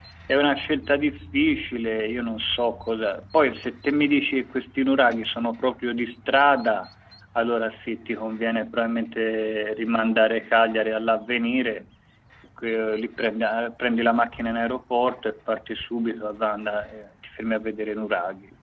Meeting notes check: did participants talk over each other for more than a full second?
No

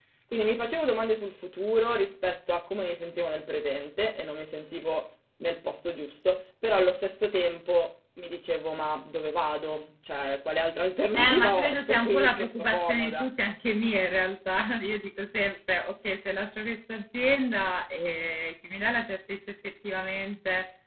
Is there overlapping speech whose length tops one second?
Yes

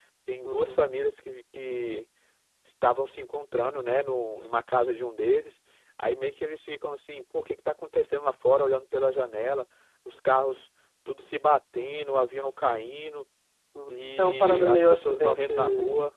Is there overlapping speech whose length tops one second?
Yes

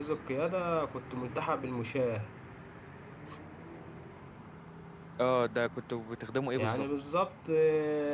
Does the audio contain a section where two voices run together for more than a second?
No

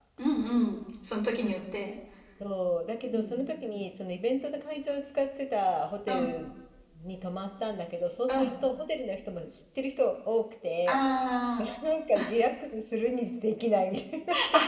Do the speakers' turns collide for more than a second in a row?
No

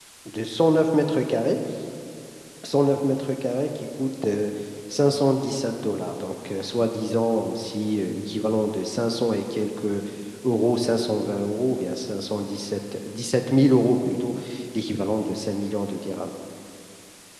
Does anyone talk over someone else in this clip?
No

